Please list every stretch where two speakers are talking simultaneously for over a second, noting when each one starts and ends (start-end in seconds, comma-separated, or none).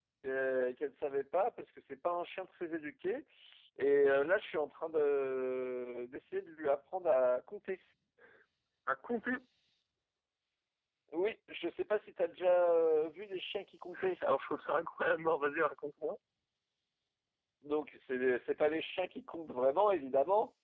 none